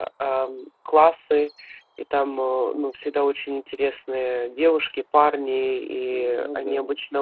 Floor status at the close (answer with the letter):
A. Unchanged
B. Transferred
A